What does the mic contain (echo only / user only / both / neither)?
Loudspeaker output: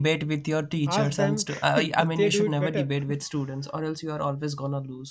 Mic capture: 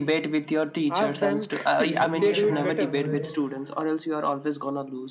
both